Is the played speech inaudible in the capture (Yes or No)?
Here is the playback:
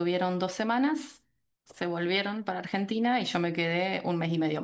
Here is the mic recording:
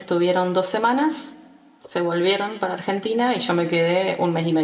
No